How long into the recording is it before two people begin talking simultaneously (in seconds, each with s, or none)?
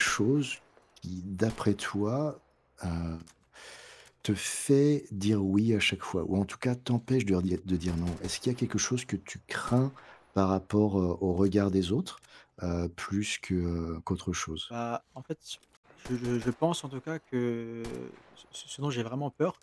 none